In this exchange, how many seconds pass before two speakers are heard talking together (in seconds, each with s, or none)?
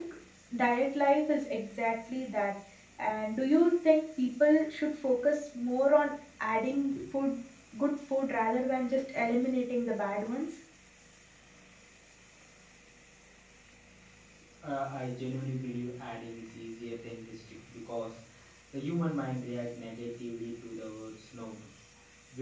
none